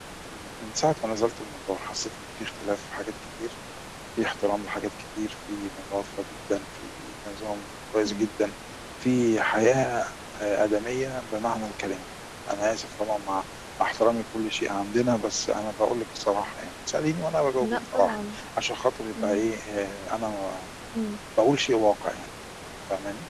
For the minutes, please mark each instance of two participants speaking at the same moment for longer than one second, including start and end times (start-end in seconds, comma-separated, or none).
none